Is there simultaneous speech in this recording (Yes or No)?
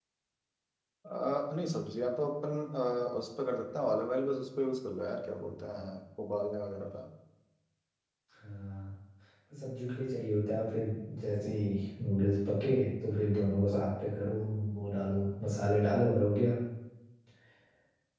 No